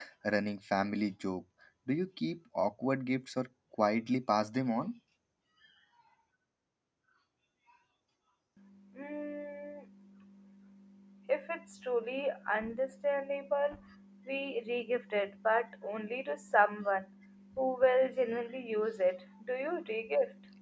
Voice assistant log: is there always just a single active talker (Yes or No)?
Yes